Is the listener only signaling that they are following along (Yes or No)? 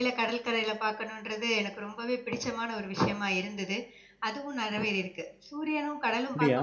Yes